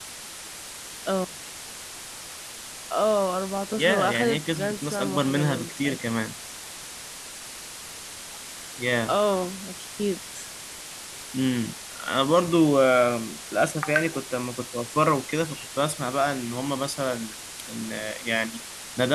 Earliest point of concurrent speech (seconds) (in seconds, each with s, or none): 3.8 s